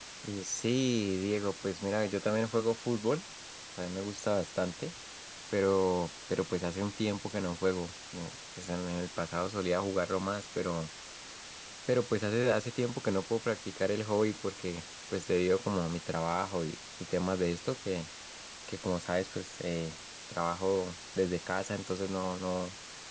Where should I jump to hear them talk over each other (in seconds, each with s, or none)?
none